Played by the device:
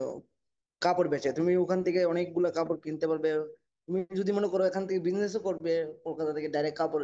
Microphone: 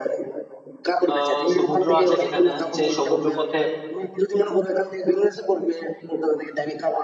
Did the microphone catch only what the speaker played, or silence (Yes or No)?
No